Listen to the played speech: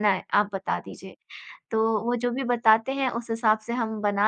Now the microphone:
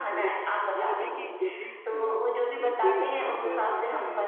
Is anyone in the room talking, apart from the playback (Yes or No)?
Yes